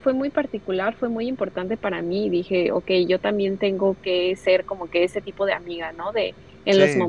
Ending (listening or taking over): listening